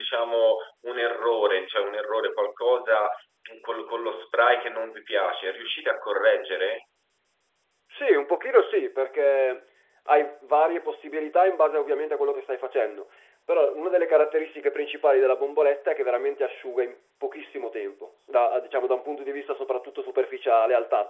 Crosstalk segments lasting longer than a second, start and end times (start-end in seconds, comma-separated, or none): none